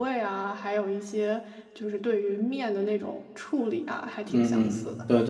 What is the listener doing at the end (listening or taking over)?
taking over